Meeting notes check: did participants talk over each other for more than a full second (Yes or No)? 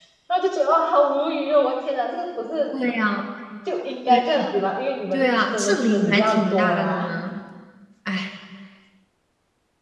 Yes